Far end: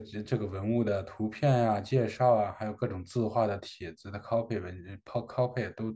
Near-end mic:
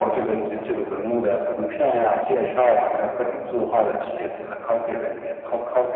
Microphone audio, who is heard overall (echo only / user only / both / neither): echo only